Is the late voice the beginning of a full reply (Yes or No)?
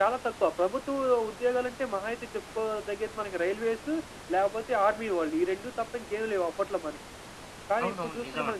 No